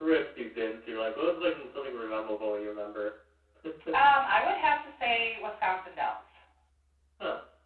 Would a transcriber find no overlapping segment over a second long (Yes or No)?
Yes